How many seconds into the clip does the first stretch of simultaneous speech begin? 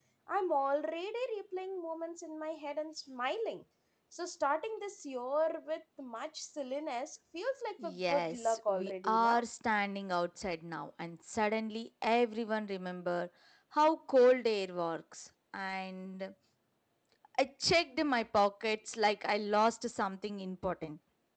7.8 s

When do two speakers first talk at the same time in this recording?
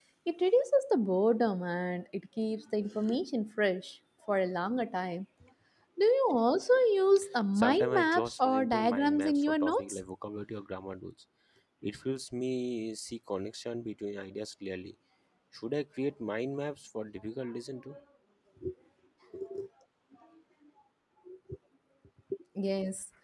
7.5 s

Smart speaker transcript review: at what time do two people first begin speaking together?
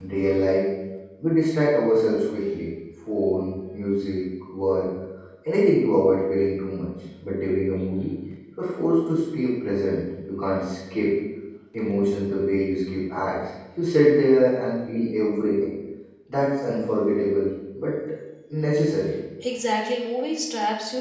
none

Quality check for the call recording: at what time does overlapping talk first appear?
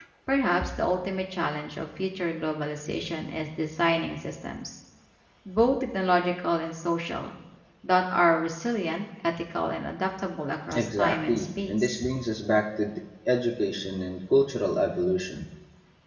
10.7 s

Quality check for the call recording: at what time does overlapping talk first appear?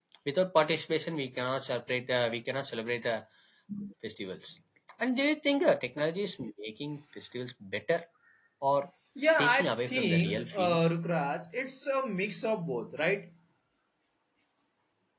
9.4 s

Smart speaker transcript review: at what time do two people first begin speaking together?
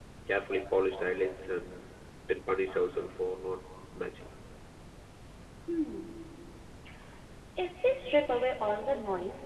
none

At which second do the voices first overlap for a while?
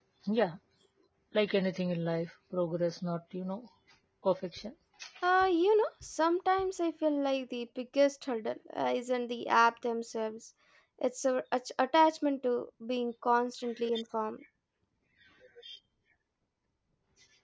none

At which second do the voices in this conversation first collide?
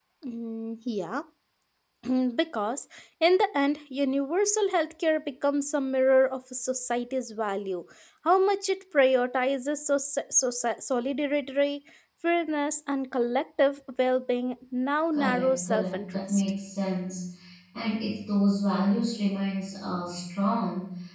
15.1 s

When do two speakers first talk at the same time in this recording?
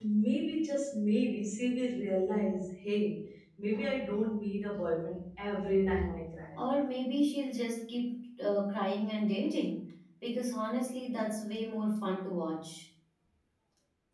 none

